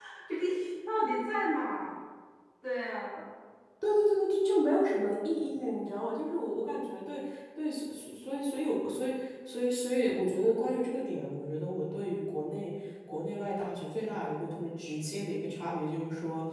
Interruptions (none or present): none